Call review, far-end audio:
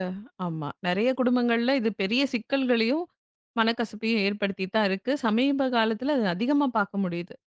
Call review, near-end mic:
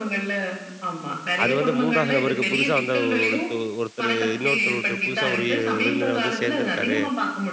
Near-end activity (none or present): present